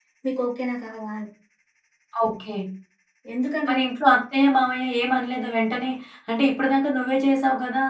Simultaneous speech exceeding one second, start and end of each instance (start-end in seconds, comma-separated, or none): none